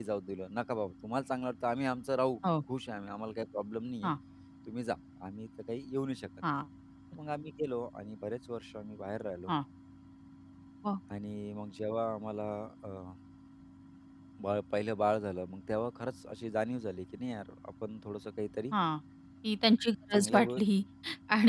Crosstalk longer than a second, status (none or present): none